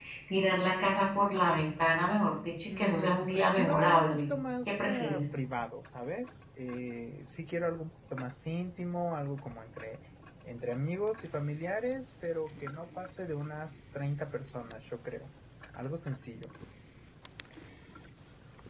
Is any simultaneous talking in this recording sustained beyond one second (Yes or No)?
Yes